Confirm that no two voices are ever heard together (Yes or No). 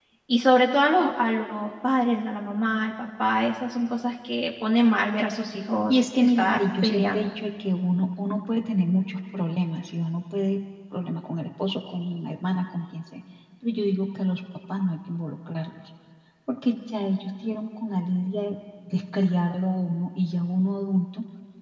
No